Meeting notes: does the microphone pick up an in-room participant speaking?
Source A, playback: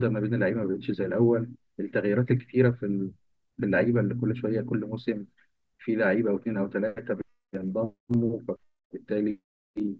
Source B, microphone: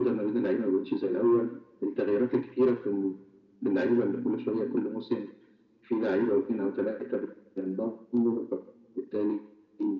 No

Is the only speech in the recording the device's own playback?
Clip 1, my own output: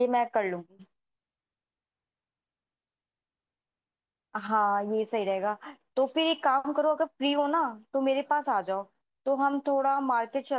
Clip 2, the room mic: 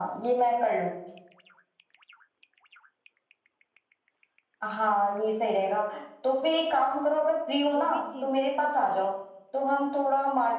No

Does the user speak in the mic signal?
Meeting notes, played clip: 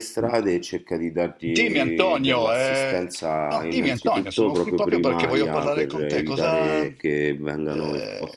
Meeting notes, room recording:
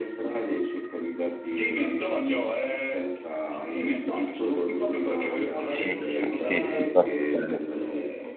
Yes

